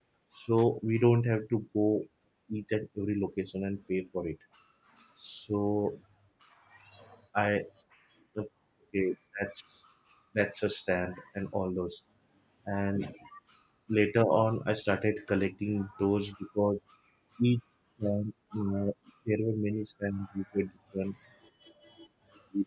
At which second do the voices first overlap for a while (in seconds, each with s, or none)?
none